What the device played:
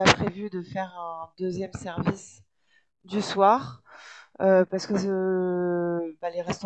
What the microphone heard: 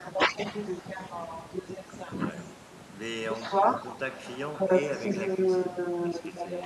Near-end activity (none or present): present